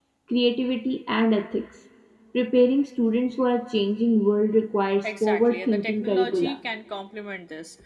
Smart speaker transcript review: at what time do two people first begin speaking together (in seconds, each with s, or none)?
5.0 s